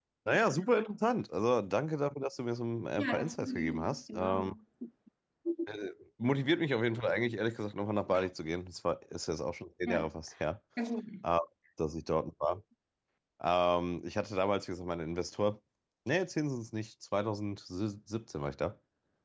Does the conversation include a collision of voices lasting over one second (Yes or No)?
Yes